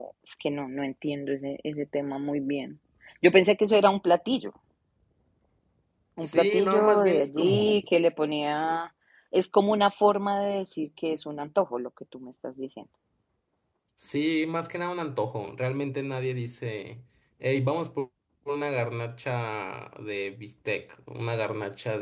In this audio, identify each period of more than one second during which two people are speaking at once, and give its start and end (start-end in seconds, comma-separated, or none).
6.2-7.7